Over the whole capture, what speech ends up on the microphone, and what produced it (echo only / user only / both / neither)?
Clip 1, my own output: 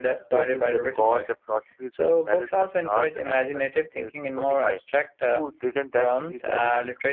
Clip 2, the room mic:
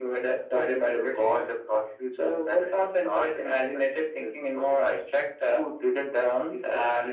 echo only